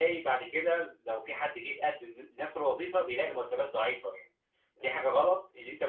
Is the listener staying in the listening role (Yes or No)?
Yes